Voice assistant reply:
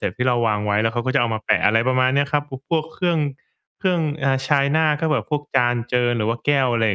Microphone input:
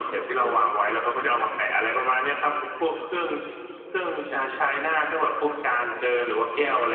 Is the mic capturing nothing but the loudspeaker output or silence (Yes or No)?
No